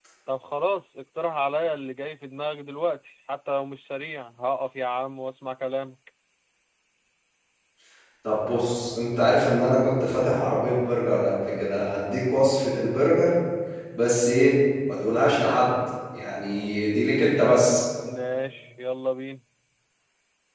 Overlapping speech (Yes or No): No